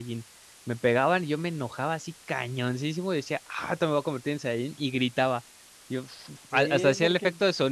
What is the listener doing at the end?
taking over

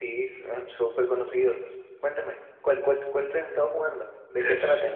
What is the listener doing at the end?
taking over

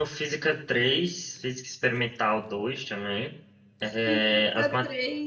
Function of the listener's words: taking over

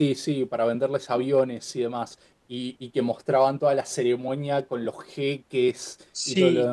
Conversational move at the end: taking over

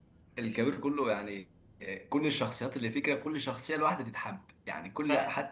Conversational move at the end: taking over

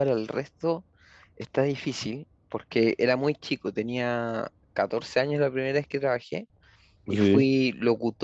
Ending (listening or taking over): listening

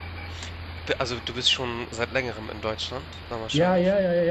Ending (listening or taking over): taking over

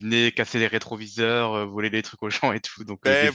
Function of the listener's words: taking over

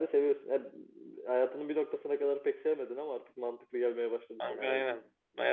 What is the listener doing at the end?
taking over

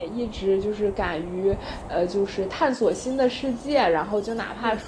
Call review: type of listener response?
listening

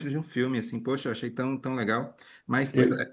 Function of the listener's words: listening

